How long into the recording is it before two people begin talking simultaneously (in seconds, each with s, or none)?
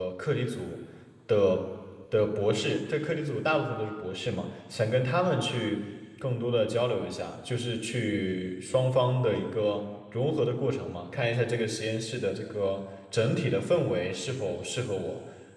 none